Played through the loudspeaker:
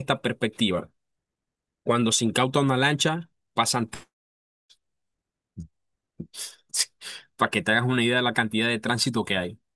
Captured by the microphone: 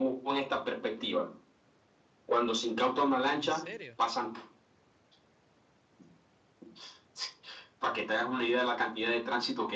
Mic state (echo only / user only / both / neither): both